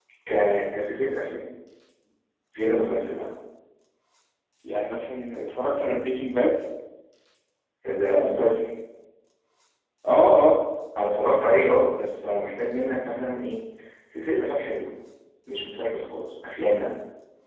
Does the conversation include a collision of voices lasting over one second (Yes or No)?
No